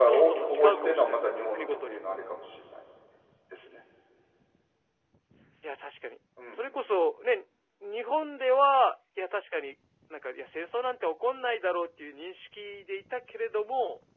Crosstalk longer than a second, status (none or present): present